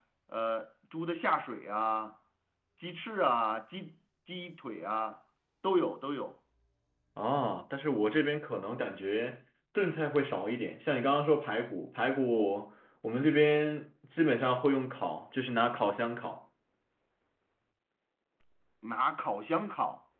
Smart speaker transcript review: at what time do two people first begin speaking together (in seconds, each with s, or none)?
none